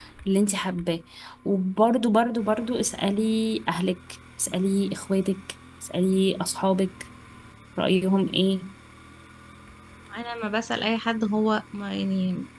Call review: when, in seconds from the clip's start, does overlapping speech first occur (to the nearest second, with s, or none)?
none